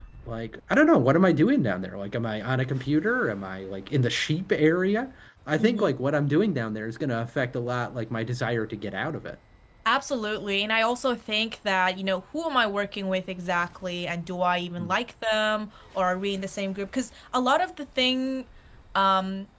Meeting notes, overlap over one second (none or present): none